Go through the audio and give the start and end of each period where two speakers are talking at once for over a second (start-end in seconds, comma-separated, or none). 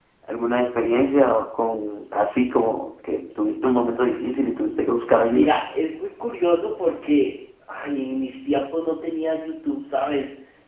none